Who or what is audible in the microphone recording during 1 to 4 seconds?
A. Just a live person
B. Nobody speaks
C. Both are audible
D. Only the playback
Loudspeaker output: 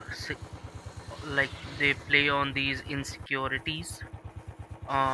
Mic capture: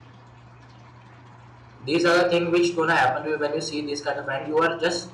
A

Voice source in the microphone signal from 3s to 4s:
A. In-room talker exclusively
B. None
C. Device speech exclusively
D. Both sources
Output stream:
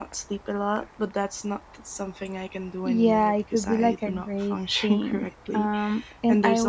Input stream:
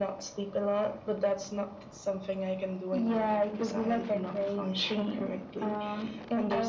C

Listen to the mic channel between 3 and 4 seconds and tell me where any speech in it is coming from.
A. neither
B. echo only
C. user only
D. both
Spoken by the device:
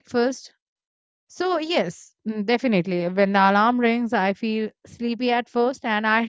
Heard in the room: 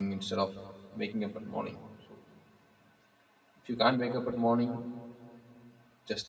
C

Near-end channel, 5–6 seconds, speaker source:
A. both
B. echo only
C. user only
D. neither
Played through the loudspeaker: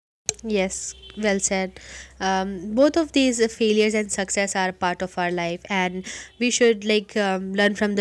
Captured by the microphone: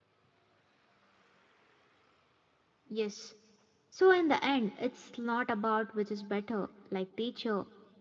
C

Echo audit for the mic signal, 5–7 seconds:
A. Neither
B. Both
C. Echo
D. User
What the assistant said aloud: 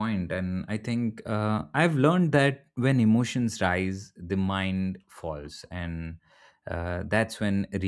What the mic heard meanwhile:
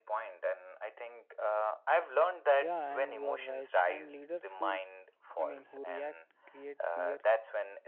B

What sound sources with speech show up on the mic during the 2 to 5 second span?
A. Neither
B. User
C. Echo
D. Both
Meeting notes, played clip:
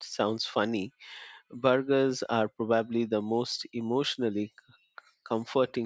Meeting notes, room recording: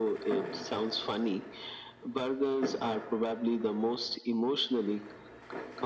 C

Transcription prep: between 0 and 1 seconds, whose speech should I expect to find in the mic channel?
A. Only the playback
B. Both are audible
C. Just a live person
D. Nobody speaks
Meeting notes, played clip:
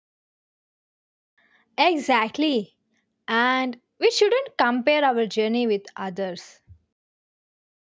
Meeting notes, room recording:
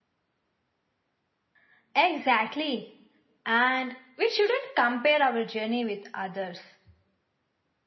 D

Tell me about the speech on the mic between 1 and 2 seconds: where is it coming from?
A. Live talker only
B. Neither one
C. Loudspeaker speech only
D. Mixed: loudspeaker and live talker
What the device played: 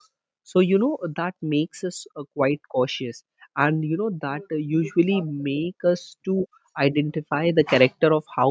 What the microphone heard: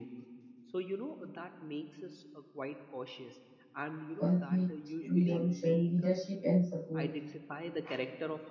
C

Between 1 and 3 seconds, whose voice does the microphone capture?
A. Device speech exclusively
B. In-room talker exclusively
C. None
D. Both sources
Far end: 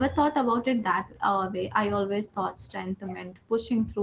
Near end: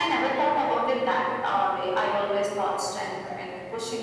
A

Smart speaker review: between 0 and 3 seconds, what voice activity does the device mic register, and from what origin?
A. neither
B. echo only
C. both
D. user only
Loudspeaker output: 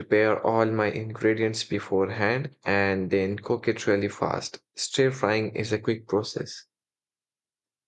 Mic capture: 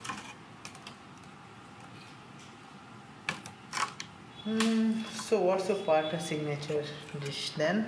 A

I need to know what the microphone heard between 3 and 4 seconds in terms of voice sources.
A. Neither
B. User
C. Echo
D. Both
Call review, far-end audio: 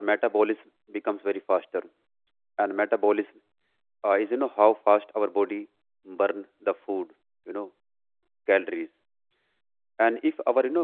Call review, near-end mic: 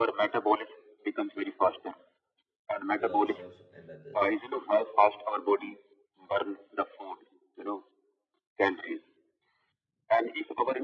D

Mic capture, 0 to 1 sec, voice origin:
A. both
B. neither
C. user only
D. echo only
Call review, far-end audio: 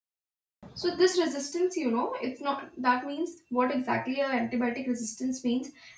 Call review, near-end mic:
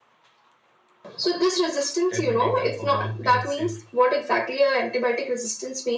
B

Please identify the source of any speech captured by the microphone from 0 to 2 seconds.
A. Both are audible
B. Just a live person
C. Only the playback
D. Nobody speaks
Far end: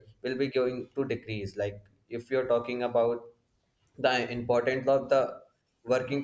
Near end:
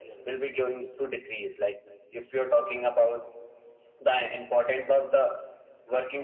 C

